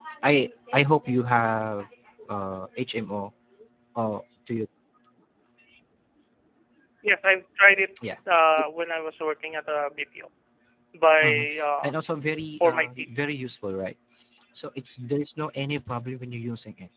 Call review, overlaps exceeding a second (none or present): none